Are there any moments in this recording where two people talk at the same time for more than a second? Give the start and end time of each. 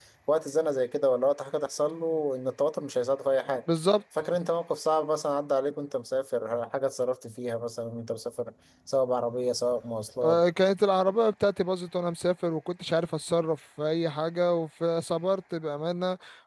none

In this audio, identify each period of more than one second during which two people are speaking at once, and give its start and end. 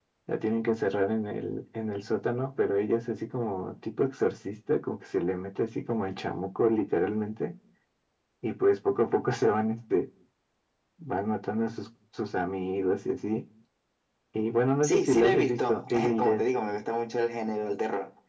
14.8-16.4

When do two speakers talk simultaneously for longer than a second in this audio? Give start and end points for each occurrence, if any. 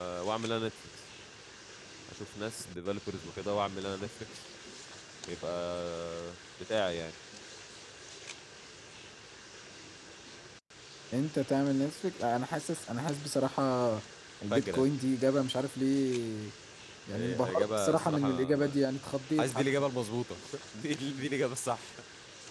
17.1-18.8

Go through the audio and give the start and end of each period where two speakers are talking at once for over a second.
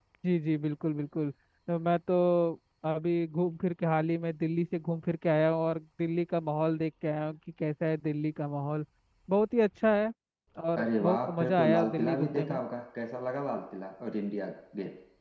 10.8-12.6

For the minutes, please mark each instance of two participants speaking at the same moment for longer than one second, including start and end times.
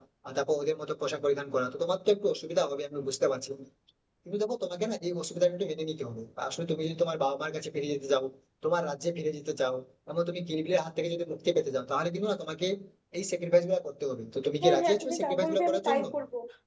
14.6-16.0

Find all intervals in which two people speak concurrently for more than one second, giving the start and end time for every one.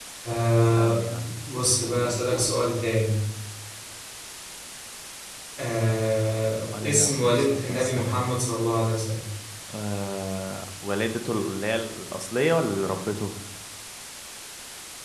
6.8-8.2

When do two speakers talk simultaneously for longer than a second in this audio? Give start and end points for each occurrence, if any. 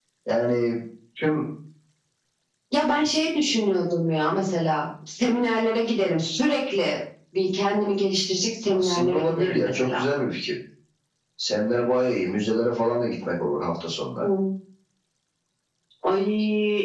8.7-10.0

